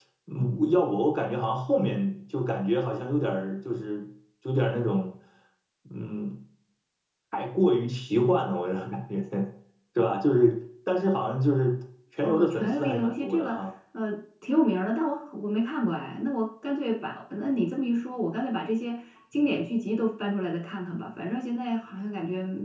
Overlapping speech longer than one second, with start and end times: 12.2-13.6

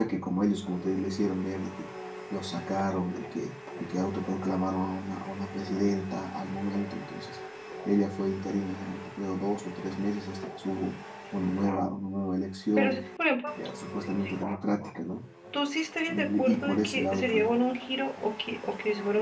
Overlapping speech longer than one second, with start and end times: 16.1-17.5

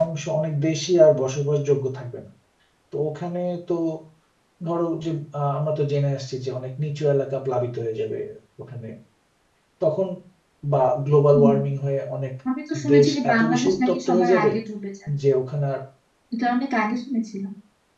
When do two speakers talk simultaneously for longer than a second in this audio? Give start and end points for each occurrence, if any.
12.9-14.5

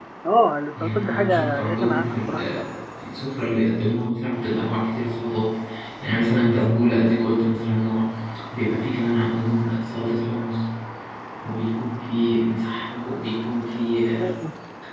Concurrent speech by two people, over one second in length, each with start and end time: 0.8-2.6

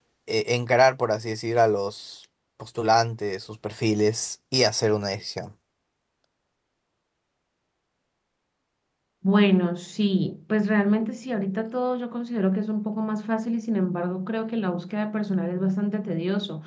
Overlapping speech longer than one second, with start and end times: none

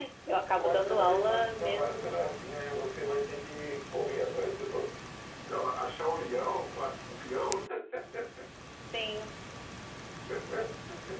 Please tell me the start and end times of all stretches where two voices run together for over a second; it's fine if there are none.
0.5-2.2

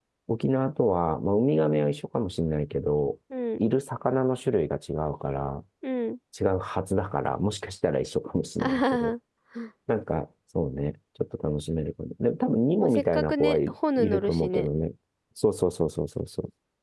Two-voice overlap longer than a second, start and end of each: 12.8-14.7

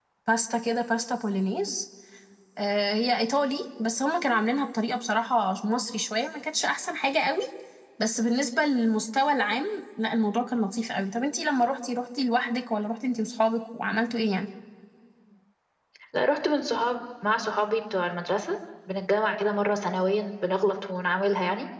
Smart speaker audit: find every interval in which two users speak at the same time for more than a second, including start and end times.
none

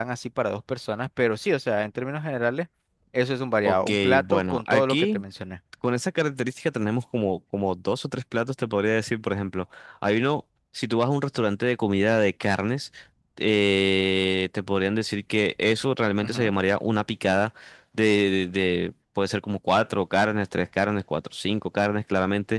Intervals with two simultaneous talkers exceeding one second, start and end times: 3.6-5.2

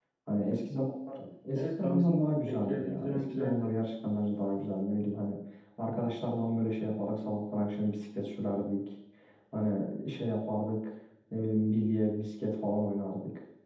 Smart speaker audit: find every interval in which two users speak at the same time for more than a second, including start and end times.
1.6-3.7

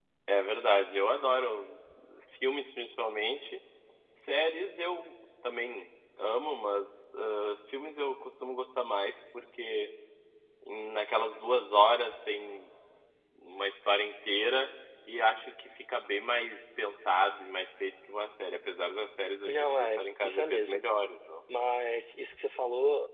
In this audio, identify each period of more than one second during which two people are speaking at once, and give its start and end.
19.5-20.8

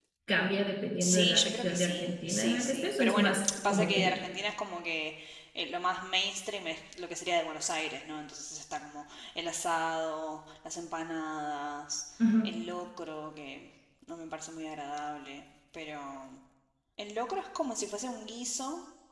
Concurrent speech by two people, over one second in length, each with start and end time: 1.0-4.2

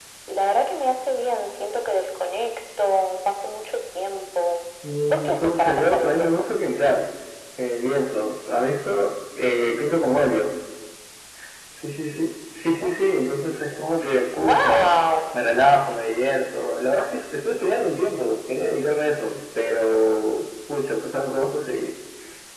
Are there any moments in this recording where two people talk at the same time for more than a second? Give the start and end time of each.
5.1-6.3

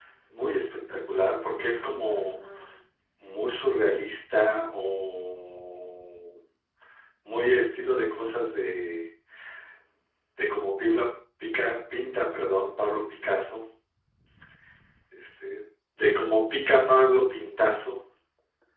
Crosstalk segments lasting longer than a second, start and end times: none

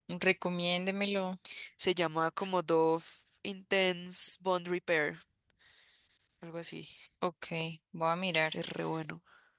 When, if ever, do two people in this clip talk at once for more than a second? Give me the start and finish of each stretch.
none

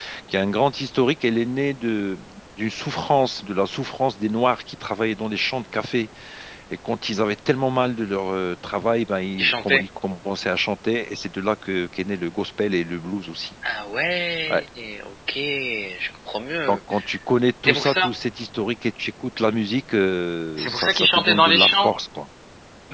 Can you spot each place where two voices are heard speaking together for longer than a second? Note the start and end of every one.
20.6-21.9

